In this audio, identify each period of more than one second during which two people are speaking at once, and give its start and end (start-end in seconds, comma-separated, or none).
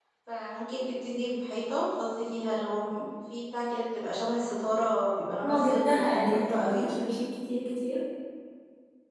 5.4-6.9